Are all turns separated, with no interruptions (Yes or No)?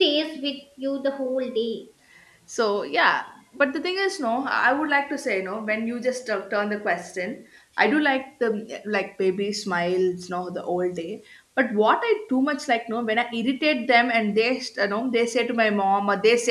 Yes